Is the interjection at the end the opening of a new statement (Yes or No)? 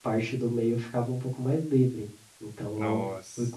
No